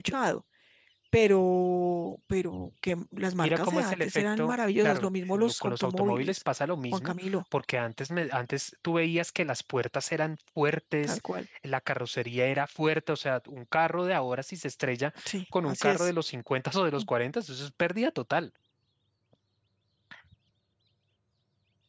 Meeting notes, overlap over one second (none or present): present